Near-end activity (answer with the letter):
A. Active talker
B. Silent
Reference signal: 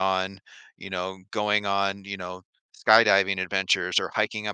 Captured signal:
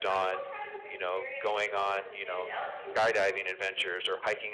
A